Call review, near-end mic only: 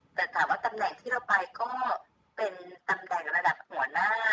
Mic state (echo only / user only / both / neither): echo only